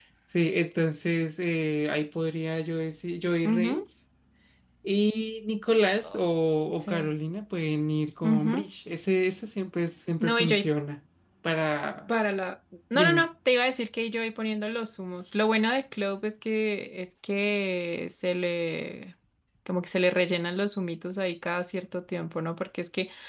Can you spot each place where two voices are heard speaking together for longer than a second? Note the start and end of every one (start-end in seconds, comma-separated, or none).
none